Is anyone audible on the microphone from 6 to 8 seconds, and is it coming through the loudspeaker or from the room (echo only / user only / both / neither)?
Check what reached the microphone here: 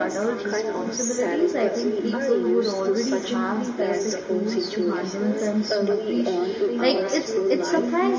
both